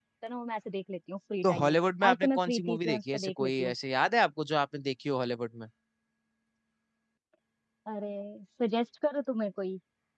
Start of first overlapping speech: 1 s

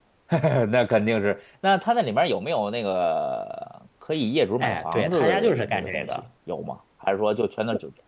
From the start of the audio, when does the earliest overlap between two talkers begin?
5 s

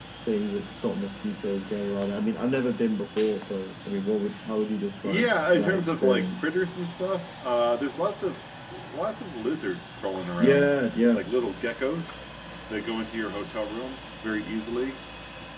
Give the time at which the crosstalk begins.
5 s

